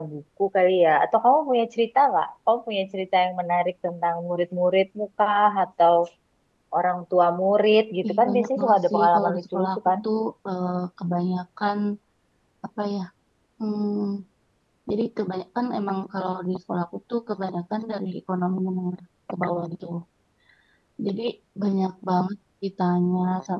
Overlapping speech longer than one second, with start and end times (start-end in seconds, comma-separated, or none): 8.1-9.8